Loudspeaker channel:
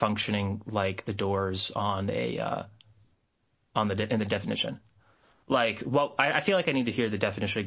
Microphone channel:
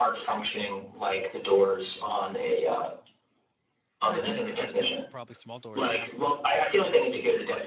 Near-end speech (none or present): present